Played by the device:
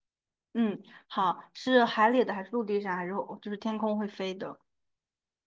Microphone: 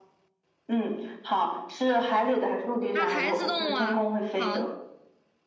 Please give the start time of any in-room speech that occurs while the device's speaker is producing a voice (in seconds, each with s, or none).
2.9 s